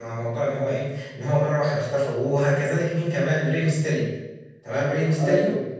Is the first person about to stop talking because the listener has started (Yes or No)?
No